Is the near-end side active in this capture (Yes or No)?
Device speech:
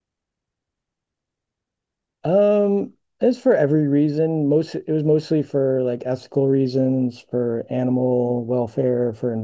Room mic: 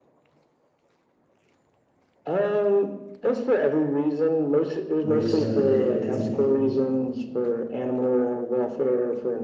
Yes